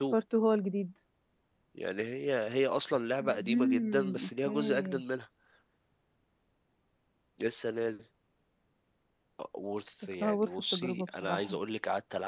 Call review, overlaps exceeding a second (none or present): present